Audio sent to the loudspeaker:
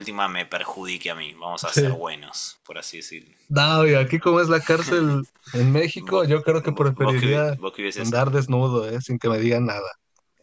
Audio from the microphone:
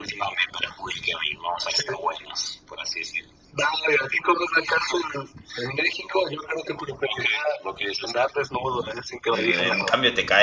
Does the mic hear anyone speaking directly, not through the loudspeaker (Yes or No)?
Yes